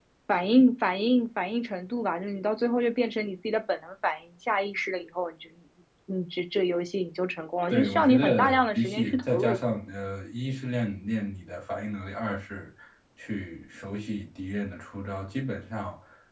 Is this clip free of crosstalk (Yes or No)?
No